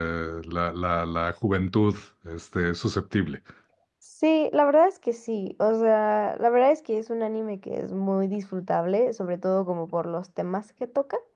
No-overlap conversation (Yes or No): Yes